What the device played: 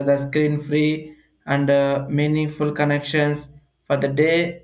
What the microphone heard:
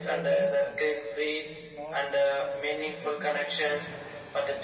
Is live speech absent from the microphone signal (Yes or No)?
No